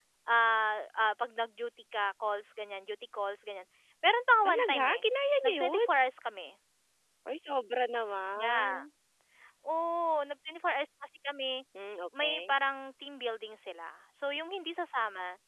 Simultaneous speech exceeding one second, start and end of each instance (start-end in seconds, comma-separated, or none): none